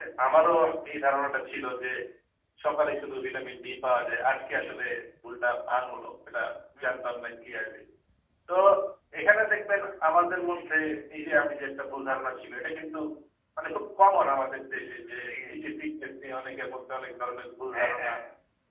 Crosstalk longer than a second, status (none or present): none